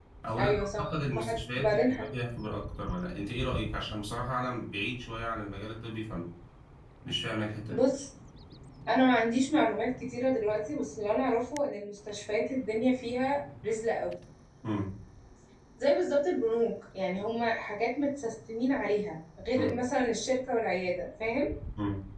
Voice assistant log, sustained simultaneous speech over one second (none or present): present